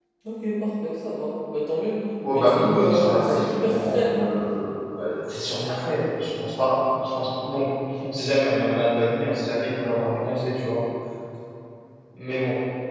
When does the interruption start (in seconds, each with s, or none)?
2.2 s